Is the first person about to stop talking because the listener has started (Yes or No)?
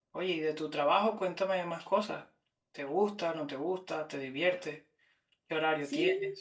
Yes